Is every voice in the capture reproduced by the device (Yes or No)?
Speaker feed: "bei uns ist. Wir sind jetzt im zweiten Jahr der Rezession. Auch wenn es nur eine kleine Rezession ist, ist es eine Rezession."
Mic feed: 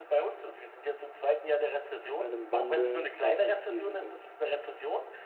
No